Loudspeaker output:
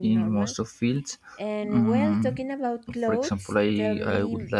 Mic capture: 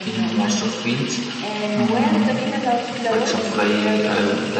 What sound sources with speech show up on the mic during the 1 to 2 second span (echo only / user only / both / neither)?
echo only